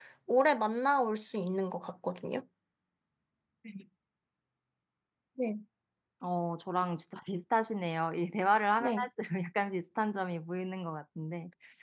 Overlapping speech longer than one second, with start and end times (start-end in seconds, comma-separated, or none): none